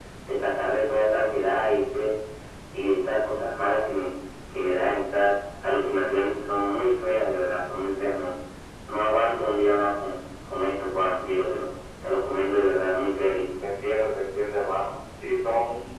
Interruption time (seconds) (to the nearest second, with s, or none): none